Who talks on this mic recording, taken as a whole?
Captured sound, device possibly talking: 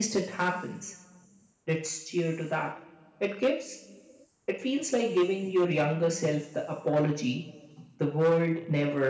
echo only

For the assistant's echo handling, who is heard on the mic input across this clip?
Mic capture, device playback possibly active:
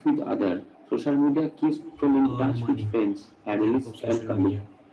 both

